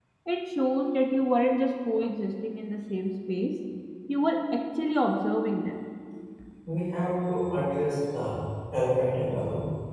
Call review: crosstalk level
none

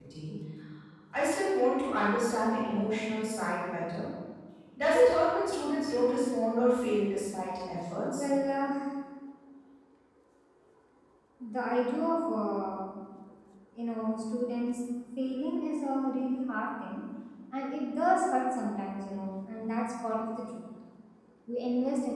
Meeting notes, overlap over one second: none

